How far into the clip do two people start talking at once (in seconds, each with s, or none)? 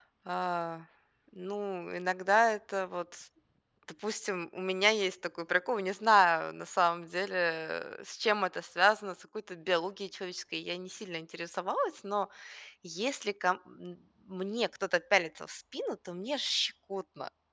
none